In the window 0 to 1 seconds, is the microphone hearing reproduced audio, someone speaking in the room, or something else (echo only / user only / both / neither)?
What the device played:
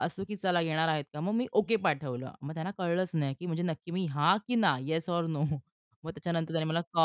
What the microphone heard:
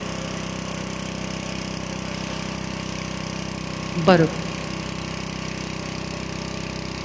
neither